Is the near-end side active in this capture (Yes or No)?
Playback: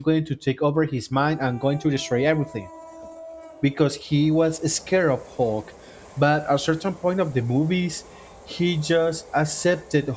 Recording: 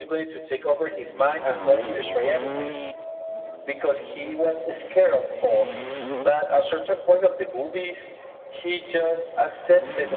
No